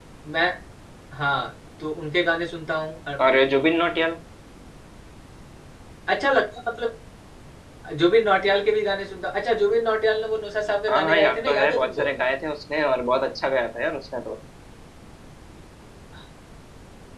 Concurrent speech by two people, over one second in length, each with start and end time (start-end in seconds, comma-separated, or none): 10.9-12.1